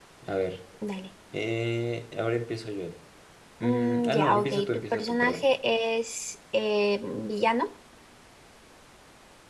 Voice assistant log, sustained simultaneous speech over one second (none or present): present